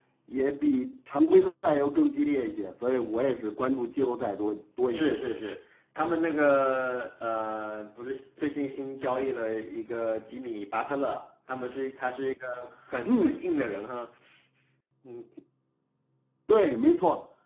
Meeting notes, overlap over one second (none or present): none